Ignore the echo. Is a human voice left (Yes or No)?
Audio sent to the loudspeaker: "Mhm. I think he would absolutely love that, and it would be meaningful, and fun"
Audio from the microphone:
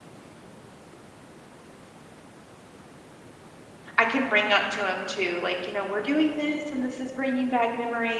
Yes